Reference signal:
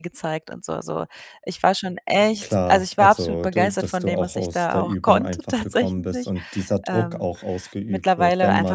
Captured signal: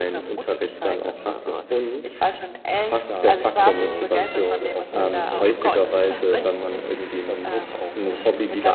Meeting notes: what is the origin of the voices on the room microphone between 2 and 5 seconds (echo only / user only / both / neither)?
both